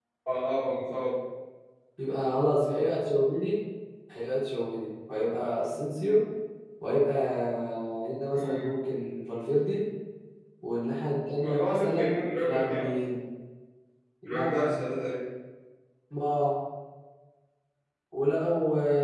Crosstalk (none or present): present